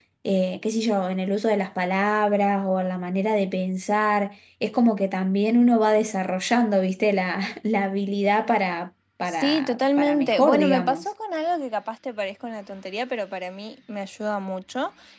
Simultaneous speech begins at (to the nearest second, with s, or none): 9 s